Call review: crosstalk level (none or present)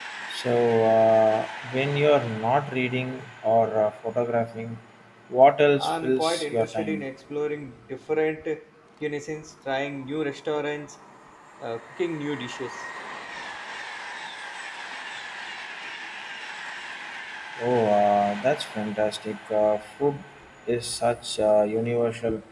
present